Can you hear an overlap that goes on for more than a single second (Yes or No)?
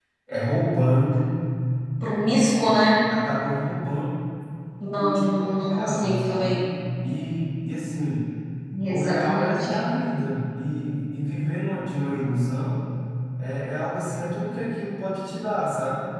Yes